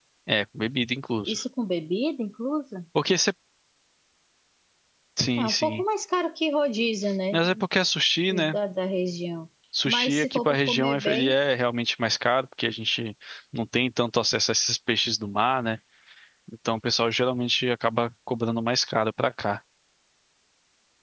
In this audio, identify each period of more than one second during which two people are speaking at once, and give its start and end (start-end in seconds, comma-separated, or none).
9.8-11.4